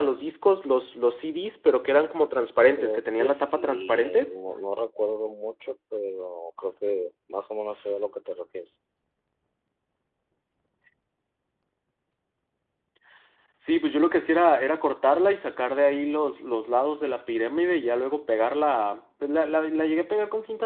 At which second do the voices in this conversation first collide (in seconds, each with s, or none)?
2.8 s